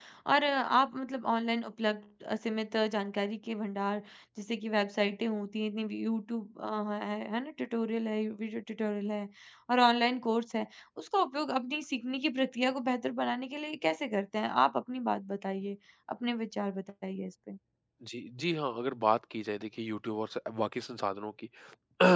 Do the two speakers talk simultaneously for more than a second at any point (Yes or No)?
No